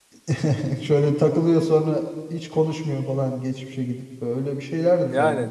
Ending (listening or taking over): taking over